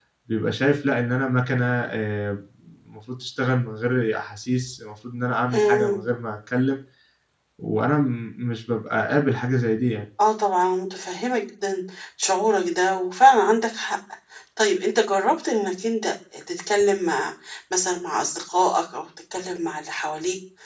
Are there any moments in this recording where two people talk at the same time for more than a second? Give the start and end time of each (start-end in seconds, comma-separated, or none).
none